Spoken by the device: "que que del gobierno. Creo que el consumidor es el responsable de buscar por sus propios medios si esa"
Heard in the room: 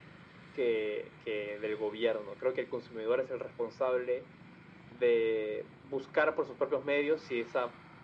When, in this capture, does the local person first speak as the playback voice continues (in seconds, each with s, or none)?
none